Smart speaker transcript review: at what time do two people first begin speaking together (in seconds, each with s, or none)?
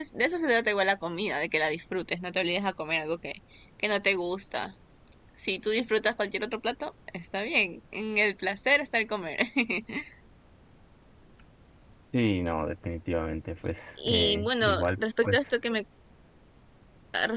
14.0 s